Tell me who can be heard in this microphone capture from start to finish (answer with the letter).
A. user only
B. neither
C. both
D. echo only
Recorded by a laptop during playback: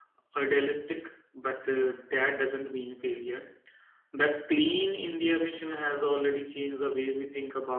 A